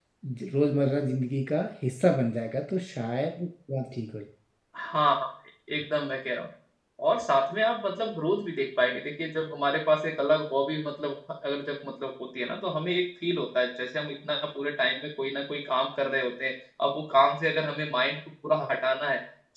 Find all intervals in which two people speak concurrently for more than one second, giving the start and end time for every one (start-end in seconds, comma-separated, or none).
none